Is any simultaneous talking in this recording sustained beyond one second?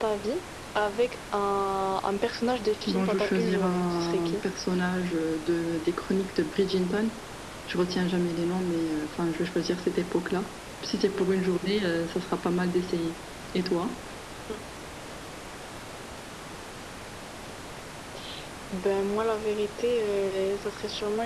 Yes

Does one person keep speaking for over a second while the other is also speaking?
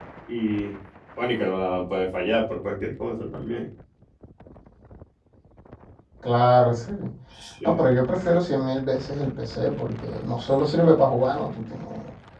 No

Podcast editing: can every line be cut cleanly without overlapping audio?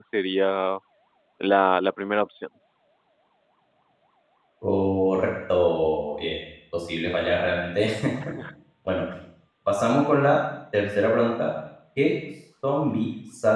Yes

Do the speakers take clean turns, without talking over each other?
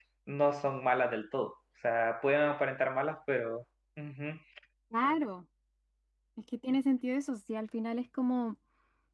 Yes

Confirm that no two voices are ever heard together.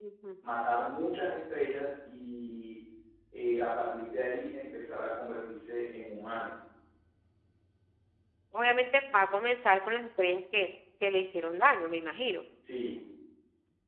Yes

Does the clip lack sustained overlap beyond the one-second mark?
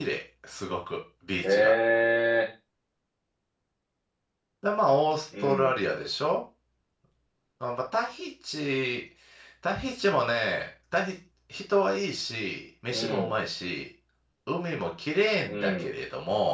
Yes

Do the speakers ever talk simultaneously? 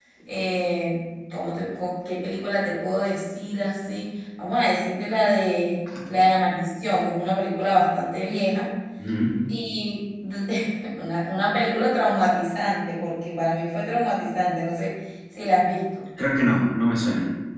No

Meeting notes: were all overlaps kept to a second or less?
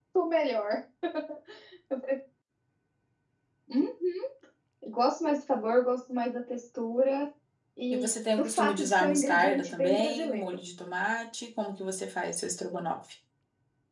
No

